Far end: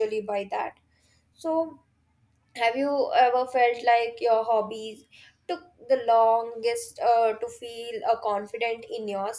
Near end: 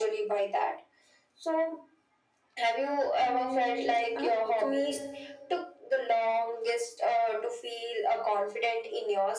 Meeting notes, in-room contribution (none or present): present